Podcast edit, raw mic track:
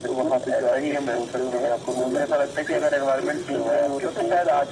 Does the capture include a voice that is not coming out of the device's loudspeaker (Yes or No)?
No